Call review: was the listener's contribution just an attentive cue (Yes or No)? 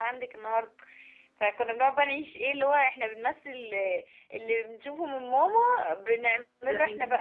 Yes